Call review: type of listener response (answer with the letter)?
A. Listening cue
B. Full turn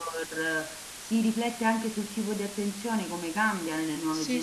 B